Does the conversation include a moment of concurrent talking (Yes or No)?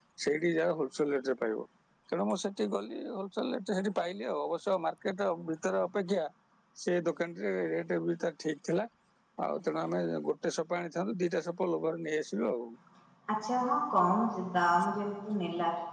No